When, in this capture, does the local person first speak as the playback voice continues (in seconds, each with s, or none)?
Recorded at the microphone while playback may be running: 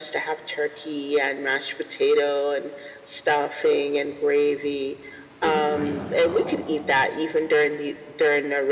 5.4 s